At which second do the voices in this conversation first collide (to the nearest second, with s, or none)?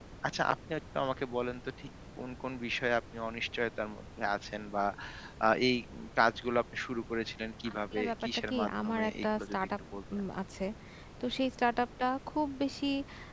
8 s